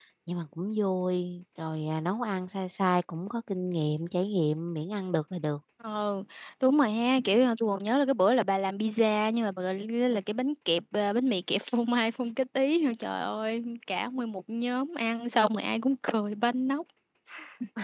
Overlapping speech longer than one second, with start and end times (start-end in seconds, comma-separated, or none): none